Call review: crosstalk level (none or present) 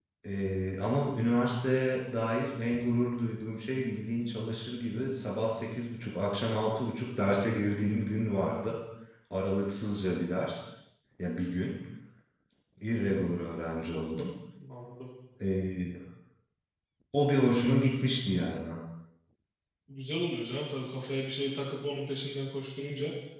none